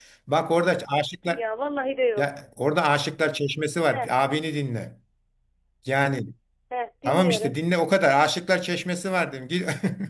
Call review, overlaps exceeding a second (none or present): none